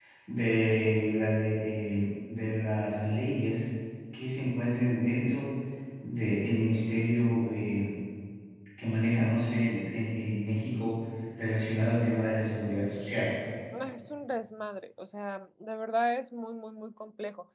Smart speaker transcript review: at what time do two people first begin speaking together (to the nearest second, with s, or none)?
none